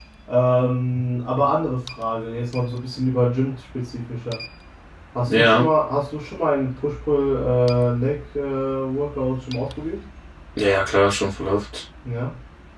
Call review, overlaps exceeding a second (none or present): none